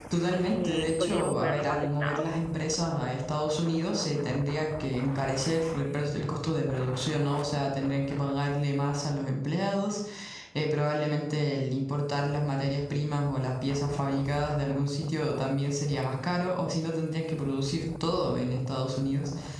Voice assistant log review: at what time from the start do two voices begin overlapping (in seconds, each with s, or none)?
0.5 s